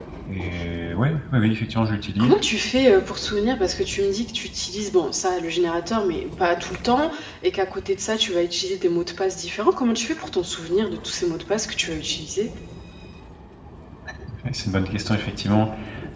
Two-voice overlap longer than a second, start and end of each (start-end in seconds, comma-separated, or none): none